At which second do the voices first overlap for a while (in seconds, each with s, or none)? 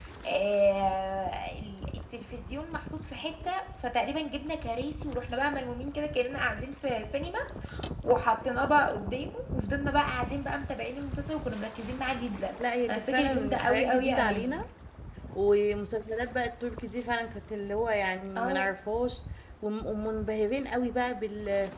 12.9 s